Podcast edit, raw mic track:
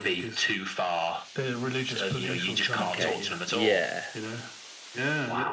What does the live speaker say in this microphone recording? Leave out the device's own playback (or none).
Okay. Yeah.